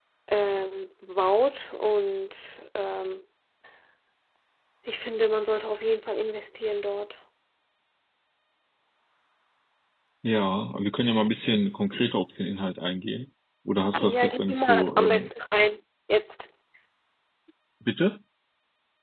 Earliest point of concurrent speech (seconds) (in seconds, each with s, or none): 13.9 s